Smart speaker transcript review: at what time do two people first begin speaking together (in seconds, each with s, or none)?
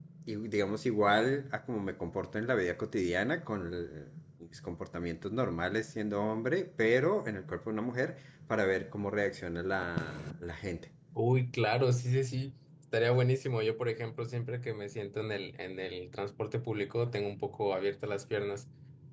none